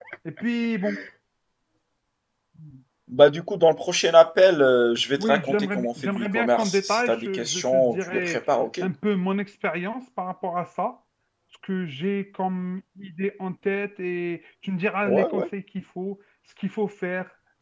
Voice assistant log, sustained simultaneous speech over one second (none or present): present